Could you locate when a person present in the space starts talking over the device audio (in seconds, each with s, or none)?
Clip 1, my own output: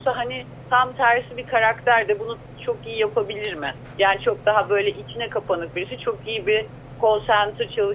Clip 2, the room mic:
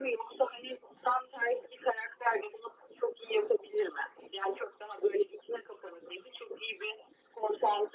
none